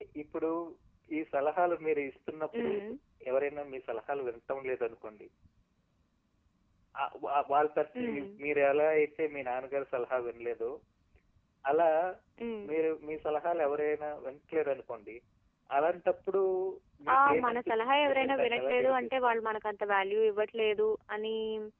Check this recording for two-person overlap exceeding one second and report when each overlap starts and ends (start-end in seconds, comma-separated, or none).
17.1-19.4